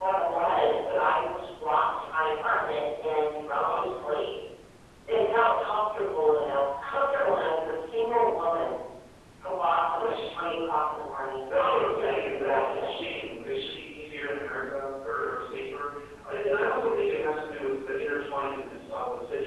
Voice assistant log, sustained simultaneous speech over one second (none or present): present